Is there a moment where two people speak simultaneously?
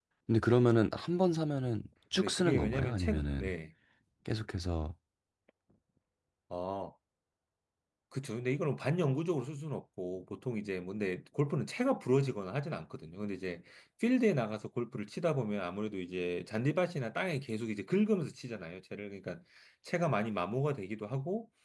Yes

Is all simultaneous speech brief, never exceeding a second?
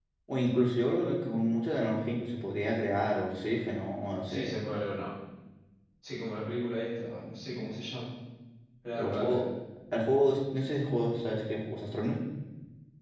Yes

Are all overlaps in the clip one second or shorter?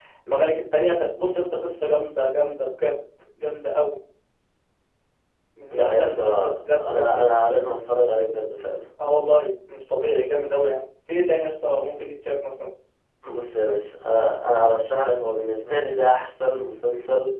No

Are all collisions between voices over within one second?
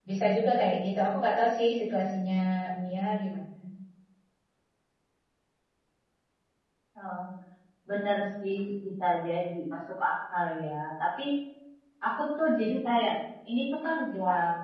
Yes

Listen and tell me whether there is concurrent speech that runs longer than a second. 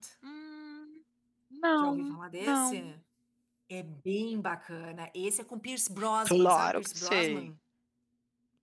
Yes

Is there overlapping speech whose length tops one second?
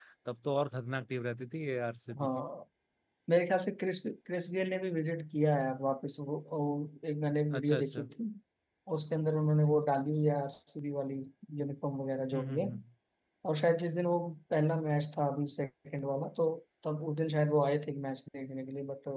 No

